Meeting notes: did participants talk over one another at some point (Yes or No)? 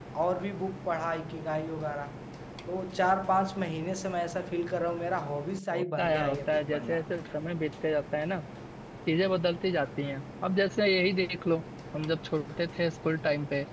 Yes